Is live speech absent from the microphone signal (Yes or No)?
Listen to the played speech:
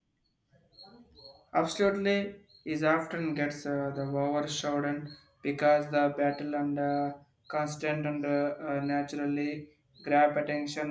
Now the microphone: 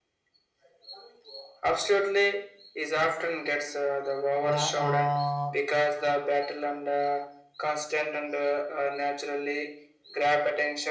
No